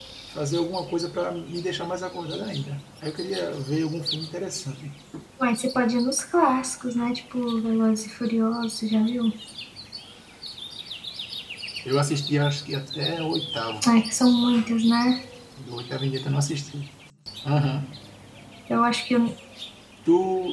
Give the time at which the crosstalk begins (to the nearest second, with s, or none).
none